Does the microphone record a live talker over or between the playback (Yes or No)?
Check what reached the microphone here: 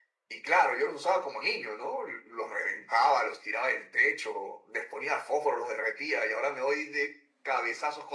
No